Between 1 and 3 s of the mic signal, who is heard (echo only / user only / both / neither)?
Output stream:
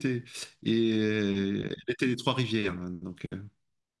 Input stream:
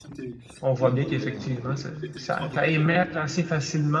both